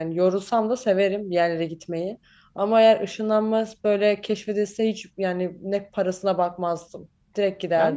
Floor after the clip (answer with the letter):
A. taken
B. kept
A